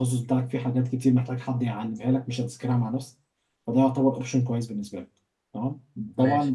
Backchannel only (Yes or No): Yes